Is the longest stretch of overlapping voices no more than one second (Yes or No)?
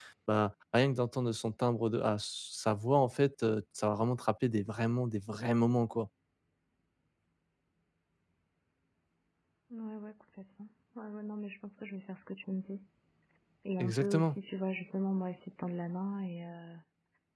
Yes